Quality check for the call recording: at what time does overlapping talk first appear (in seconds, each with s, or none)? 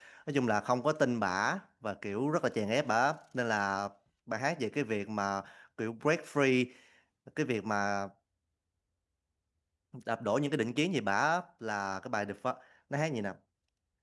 none